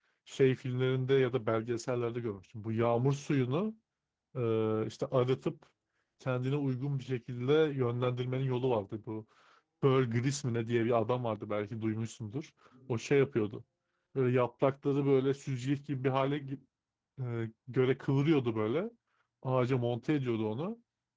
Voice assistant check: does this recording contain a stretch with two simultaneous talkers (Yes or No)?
No